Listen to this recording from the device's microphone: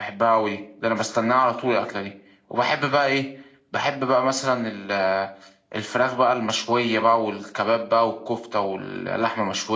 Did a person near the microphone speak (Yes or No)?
Yes